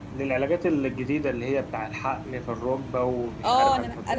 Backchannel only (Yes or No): No